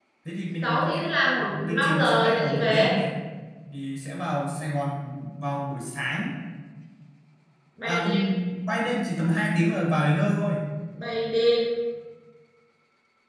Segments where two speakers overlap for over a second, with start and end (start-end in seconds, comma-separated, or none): 1.5-2.9